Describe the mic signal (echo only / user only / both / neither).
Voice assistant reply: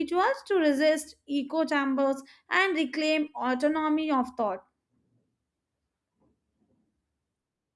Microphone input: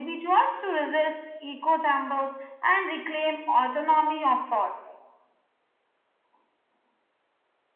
echo only